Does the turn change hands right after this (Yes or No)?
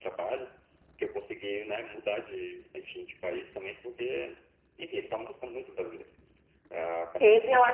Yes